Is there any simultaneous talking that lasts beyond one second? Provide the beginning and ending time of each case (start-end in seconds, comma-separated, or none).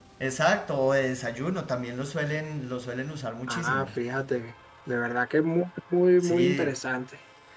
none